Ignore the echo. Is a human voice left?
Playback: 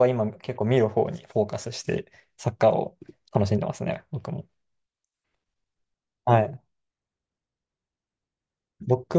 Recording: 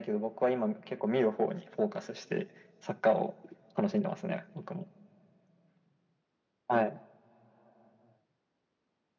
No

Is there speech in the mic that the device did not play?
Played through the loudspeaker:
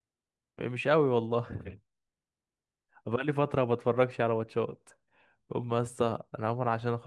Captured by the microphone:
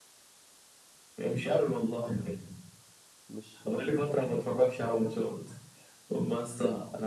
Yes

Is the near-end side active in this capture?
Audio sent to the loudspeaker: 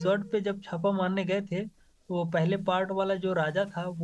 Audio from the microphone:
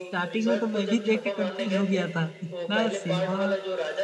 Yes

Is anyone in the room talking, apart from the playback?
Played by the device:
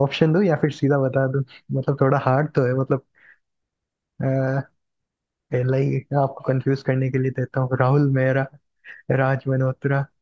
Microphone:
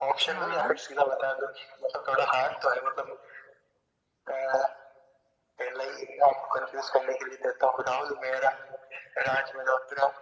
Yes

